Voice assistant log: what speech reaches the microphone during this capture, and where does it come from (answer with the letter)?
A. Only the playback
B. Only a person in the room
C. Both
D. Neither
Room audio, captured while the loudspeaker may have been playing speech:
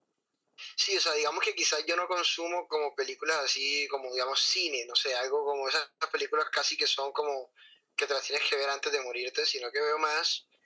A